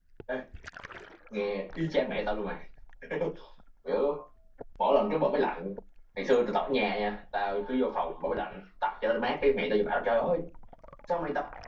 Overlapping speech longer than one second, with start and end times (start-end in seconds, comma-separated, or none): none